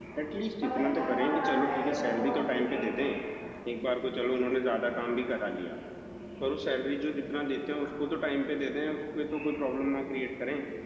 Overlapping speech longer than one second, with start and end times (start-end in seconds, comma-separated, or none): 0.6-2.6